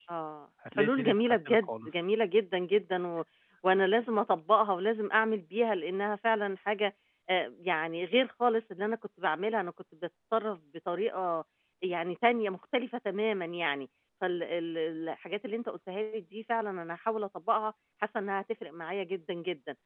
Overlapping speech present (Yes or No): Yes